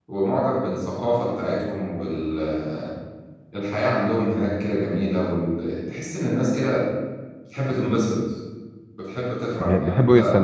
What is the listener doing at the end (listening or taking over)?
taking over